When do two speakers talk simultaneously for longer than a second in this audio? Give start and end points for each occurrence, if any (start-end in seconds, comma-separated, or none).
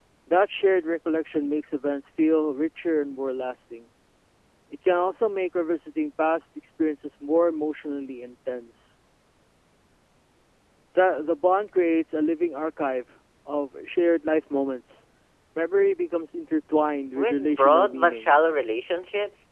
17.2-18.4